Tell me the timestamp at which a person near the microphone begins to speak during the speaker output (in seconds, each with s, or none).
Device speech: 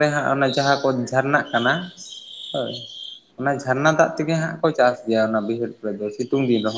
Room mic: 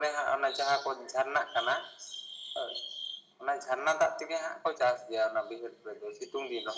none